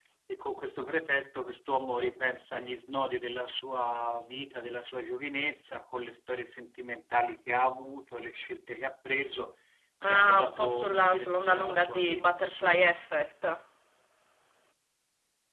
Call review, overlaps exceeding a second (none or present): present